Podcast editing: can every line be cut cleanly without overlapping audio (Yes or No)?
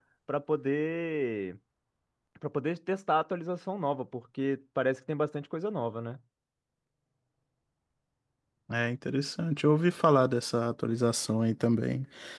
Yes